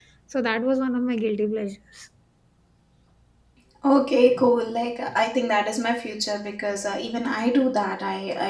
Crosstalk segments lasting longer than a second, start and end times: none

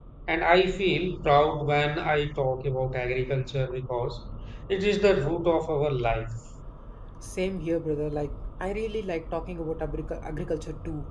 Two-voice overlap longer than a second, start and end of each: none

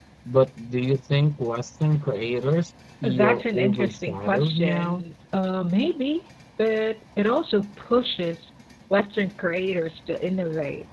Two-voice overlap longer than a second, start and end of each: 3.0-5.0

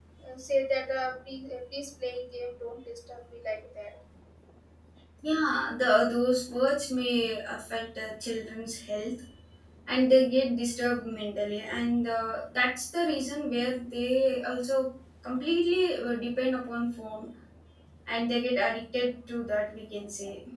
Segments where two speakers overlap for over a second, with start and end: none

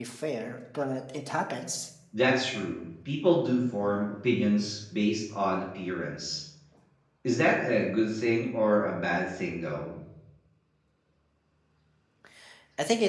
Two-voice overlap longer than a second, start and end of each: none

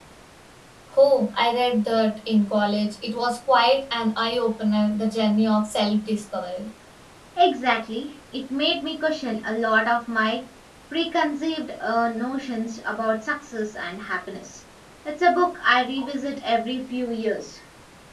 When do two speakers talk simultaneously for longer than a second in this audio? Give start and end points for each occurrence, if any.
none

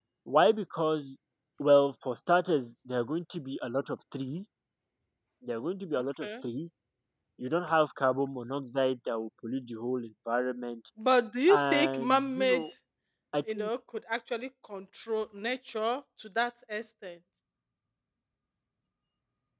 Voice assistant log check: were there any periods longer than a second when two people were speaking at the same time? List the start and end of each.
11.5-12.7

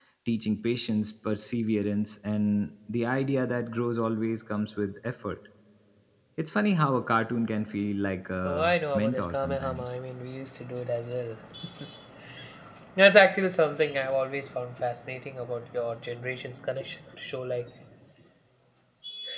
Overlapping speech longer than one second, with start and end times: 8.4-9.9

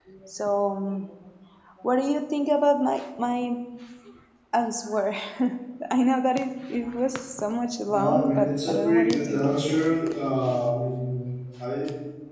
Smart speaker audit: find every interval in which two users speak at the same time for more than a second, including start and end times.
7.9-9.4

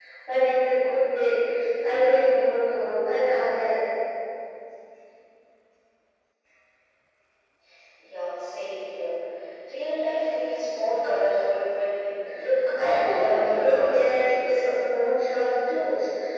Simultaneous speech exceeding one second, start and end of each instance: 12.8-14.6

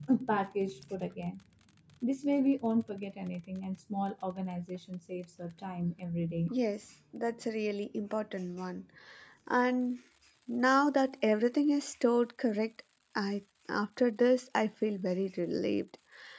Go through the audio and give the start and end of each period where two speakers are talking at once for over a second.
none

